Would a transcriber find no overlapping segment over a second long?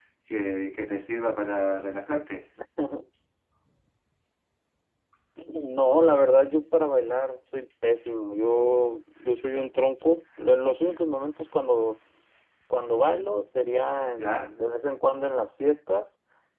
Yes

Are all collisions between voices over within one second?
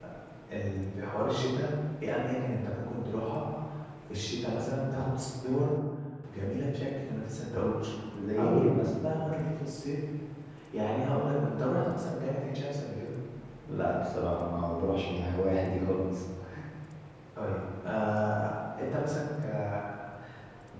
Yes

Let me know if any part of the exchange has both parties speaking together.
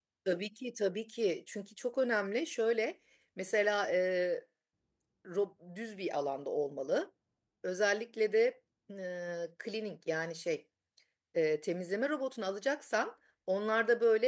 No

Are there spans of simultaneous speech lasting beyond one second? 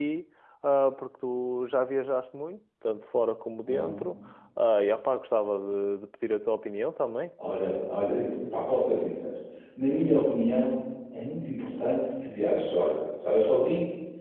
No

